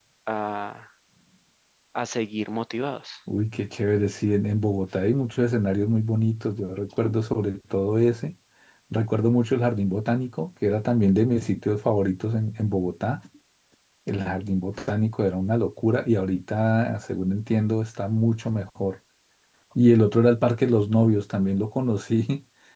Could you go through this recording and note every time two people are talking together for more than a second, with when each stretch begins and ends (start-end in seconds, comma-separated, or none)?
none